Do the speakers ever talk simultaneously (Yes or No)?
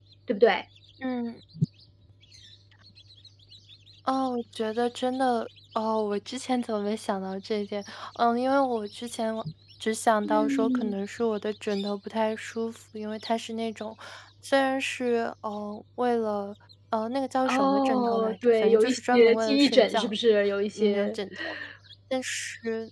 Yes